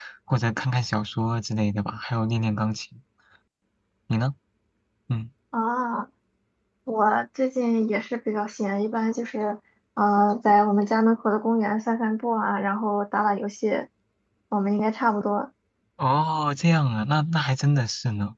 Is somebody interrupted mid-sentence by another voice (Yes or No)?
No